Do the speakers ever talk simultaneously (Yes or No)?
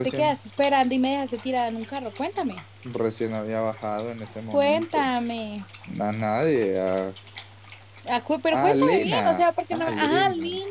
Yes